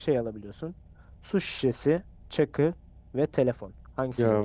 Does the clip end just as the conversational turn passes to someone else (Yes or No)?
Yes